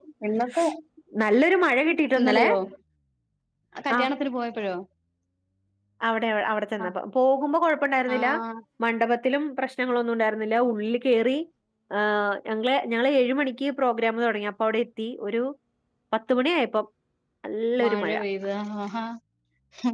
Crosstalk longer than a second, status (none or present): none